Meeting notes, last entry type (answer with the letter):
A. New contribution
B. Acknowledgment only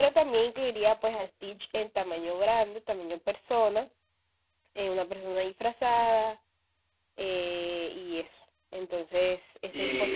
A